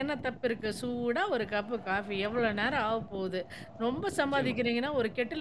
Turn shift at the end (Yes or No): No